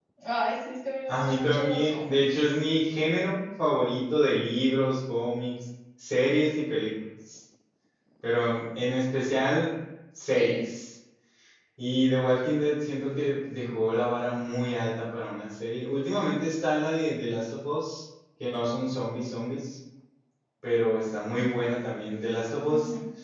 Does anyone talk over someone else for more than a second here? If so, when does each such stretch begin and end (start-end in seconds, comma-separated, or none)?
1.1-2.5